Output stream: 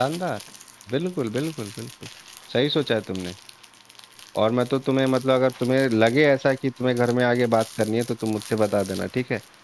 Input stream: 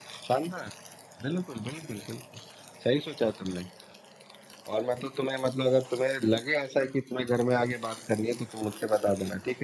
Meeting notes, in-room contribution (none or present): none